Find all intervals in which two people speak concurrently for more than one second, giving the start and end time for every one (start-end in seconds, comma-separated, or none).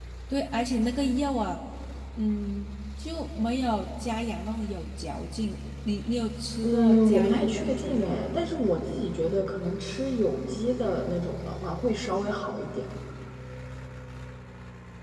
6.6-8.4